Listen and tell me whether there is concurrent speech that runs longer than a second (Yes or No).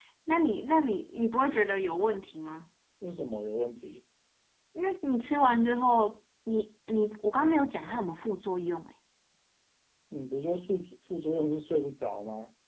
No